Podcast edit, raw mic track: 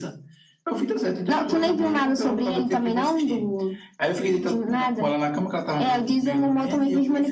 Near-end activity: none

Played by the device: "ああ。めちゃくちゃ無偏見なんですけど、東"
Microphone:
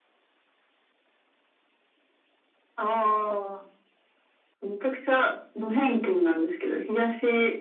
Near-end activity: none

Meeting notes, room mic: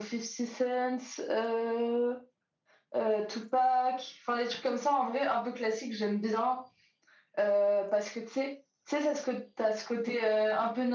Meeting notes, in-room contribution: none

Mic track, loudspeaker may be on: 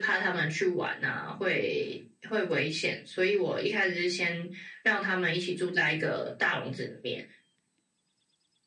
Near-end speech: none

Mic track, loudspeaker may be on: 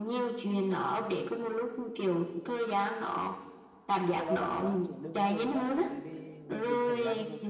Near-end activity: present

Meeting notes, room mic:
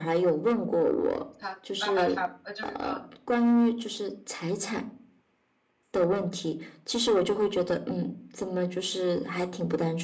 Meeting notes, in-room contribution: present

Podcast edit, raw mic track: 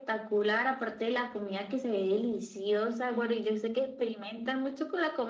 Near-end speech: none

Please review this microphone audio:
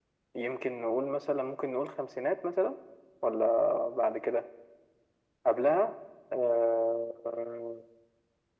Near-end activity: none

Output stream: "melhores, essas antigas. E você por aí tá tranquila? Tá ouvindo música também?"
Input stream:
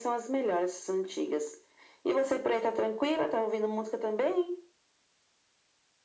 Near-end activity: none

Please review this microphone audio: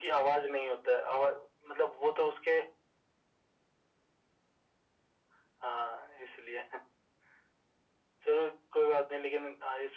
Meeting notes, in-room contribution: none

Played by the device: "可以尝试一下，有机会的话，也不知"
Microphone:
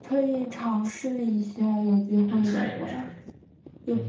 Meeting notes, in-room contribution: present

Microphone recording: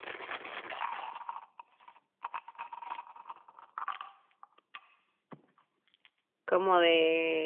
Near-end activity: present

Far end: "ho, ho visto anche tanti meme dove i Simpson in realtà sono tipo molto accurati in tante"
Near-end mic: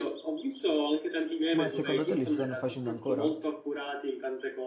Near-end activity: present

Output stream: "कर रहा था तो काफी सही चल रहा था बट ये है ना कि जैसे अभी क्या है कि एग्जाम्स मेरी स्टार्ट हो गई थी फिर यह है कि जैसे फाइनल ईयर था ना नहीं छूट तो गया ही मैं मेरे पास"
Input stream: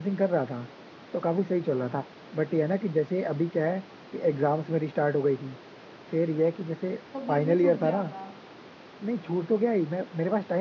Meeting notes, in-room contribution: present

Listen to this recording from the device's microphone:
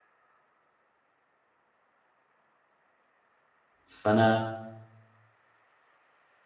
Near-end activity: present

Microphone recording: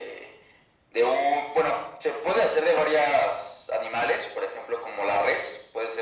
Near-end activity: none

